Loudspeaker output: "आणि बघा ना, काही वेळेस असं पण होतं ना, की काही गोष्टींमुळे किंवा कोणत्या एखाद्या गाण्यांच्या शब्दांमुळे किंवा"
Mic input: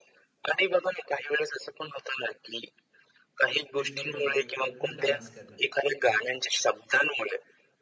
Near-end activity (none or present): present